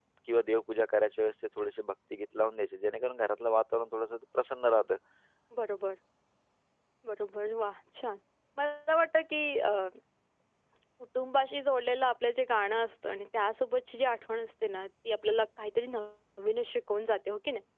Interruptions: none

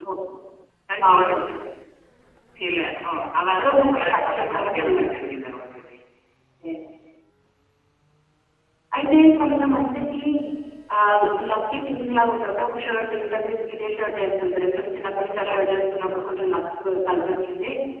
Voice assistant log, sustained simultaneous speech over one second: present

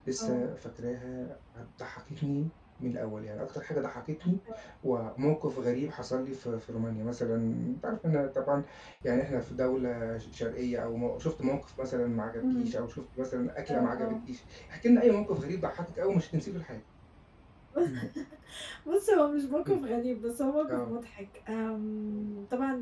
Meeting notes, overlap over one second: none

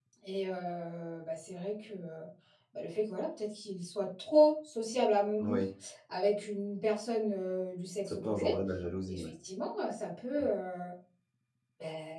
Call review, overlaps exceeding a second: none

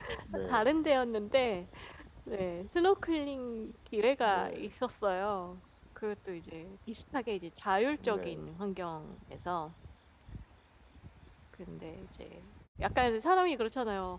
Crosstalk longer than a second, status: none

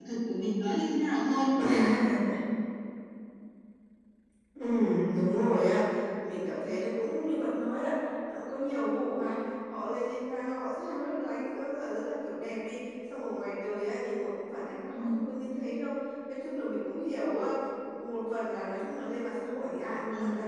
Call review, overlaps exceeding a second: none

